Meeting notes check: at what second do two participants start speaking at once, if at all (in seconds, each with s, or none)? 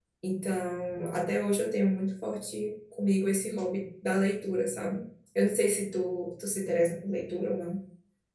none